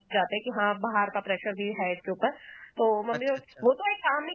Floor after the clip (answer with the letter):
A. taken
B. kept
B